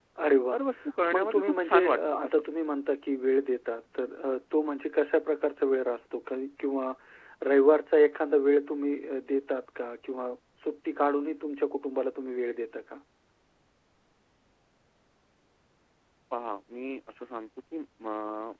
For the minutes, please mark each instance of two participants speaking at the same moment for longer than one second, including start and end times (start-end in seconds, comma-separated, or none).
1.1-2.4